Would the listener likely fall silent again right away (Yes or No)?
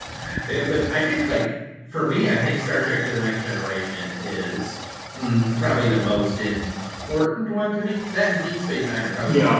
No